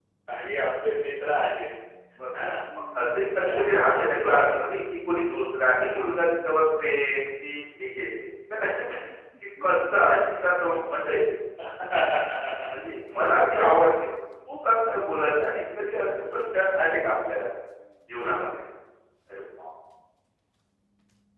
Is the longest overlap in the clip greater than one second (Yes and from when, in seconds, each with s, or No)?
Yes, from 3.4 s